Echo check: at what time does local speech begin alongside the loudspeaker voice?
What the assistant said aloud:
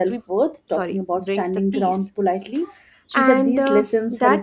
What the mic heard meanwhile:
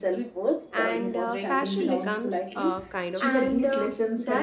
1 s

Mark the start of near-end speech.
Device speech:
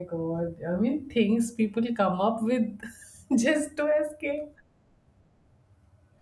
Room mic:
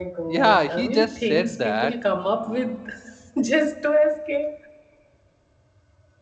0 s

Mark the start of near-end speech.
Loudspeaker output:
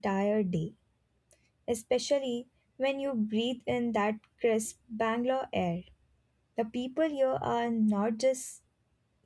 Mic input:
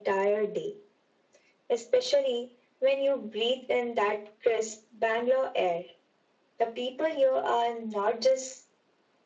none

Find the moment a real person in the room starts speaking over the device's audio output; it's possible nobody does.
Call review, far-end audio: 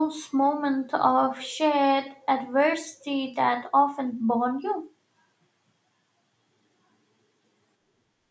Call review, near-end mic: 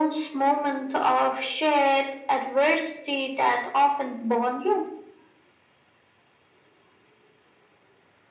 none

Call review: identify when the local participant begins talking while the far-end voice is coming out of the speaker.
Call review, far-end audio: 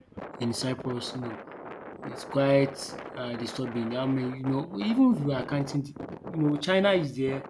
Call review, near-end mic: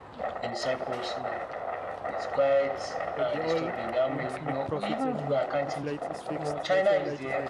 3 s

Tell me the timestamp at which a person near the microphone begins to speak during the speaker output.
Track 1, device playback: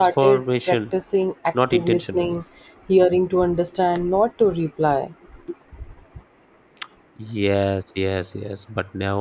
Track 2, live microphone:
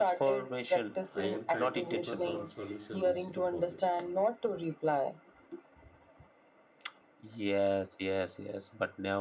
1 s

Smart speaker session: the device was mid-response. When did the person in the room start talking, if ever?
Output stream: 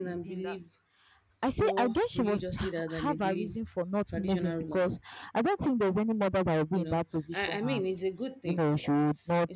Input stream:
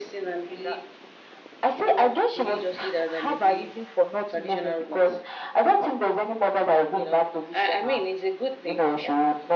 none

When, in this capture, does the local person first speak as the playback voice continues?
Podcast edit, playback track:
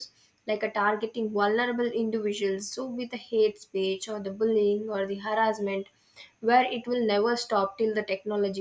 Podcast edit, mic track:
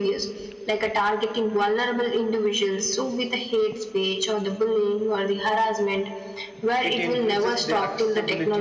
7 s

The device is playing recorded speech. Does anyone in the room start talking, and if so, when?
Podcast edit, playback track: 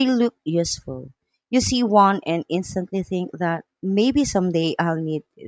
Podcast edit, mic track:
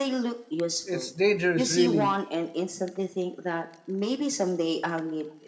1 s

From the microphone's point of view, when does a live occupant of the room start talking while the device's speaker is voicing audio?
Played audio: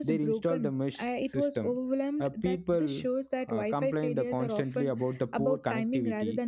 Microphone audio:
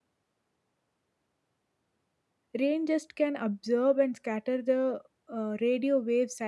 3 s

